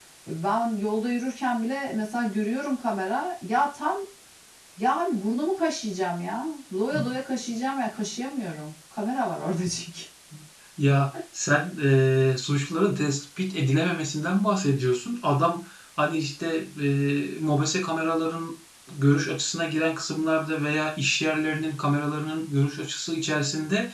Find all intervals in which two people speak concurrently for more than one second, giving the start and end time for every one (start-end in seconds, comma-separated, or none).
none